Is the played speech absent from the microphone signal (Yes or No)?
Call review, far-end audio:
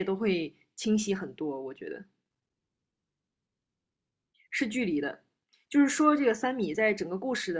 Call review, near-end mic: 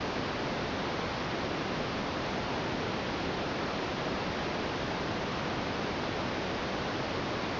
Yes